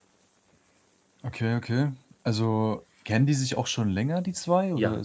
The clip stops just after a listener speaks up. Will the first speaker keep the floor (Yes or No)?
No